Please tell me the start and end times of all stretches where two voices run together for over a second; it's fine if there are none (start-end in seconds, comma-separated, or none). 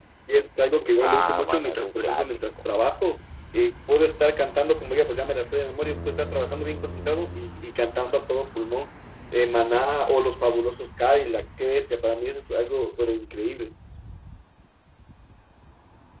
1.1-2.7